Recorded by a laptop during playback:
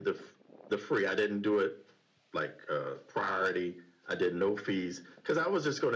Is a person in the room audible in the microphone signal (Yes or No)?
No